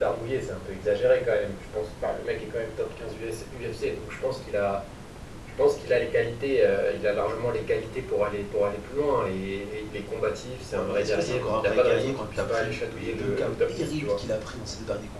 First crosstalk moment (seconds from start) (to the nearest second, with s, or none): 11 s